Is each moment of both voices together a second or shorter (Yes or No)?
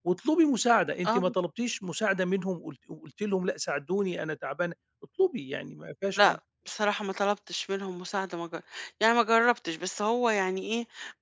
Yes